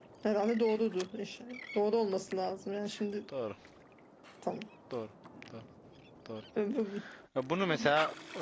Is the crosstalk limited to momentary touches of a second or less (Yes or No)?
Yes